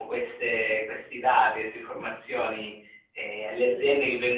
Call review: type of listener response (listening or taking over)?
listening